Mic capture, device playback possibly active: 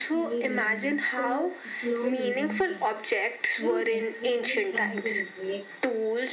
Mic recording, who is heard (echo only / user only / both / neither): both